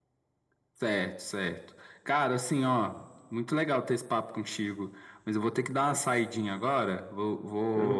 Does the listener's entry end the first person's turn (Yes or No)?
No